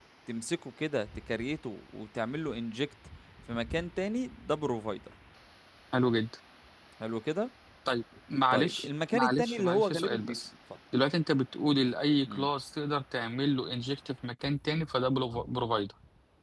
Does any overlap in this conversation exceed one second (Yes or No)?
Yes